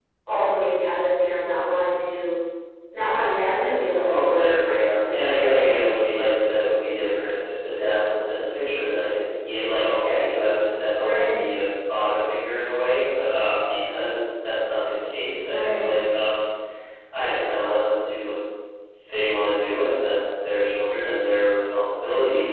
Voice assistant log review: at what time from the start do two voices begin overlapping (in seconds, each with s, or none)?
4.1 s